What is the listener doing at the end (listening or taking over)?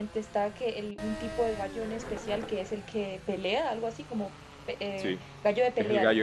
taking over